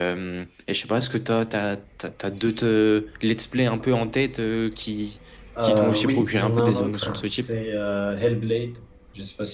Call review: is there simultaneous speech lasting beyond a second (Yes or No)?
Yes